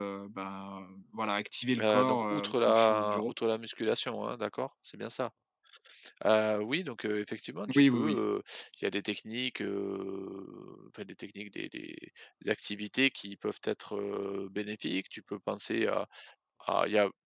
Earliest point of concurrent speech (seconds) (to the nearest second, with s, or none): 2 s